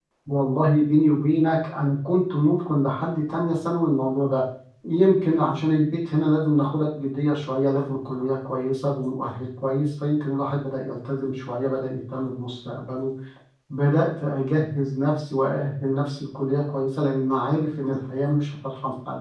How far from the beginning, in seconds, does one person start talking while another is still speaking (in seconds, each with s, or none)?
none